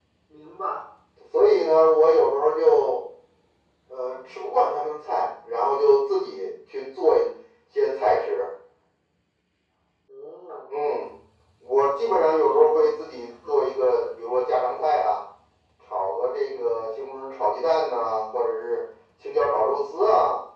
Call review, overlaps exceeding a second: none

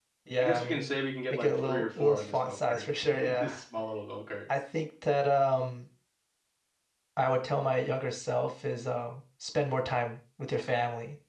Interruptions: present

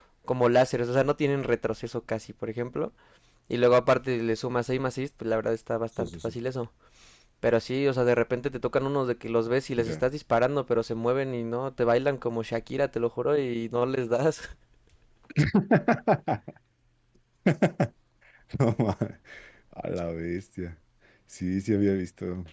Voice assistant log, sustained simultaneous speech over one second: none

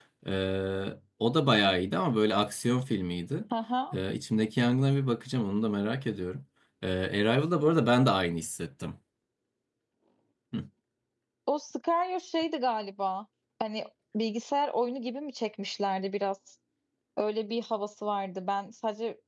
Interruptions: none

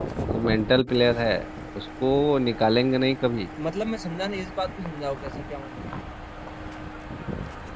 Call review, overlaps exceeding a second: none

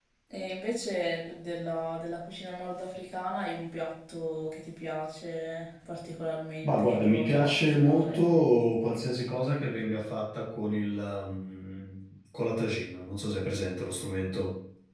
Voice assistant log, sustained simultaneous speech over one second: present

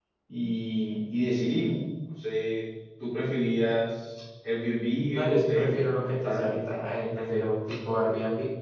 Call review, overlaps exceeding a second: present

